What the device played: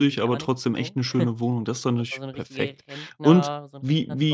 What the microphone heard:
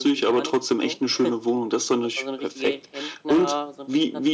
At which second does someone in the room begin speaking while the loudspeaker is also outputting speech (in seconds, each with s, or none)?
none